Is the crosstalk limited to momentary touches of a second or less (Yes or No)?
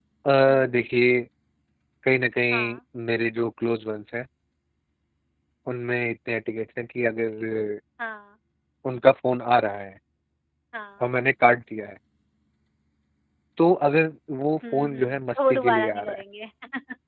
No